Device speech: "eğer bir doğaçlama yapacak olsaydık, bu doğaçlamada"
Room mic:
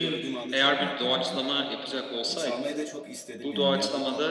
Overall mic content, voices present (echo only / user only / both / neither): both